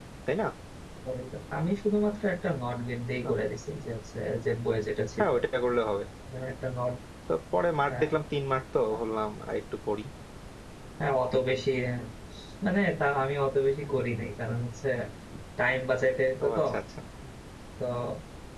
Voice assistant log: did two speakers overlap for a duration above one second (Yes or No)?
No